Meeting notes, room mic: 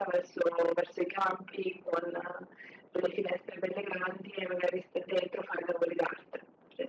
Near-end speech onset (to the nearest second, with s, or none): none